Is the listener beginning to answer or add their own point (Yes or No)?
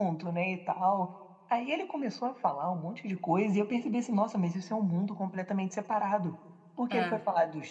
No